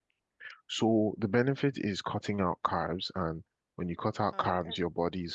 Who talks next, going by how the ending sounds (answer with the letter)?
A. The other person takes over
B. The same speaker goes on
B